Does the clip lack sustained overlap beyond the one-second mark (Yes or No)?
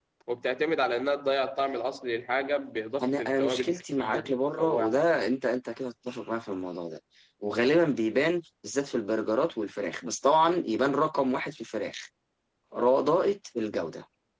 No